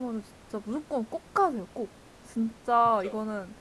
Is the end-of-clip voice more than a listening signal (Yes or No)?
No